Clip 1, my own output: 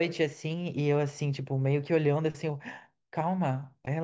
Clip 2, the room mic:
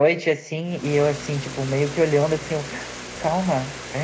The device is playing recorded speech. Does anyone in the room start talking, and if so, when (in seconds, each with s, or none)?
none